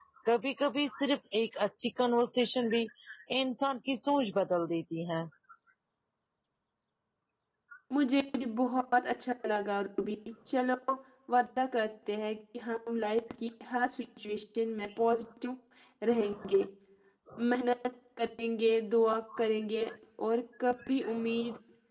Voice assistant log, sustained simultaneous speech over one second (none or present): none